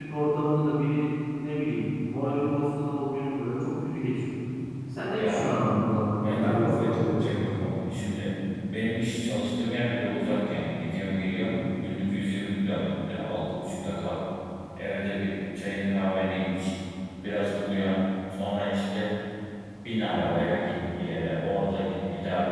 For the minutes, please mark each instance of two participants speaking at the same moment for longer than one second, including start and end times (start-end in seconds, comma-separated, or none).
6.2-7.7